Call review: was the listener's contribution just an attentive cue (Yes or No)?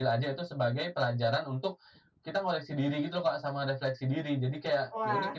No